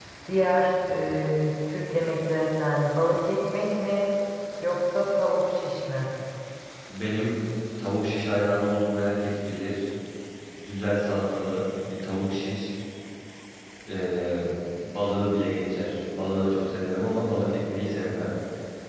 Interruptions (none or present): none